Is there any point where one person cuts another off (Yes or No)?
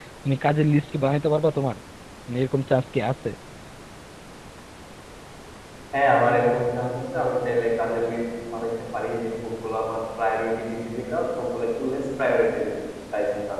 No